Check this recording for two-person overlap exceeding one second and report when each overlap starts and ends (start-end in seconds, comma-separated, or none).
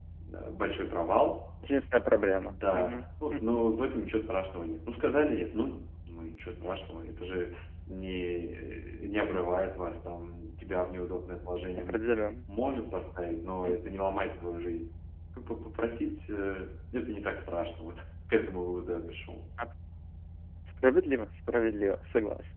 none